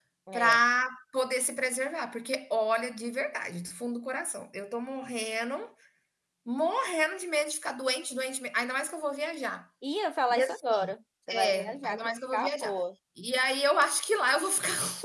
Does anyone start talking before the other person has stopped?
Yes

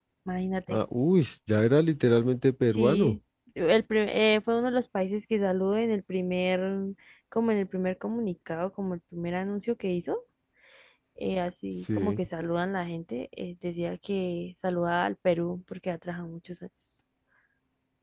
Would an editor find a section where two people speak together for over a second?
No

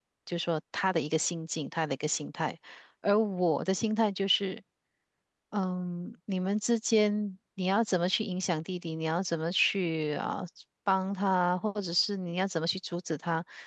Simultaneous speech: No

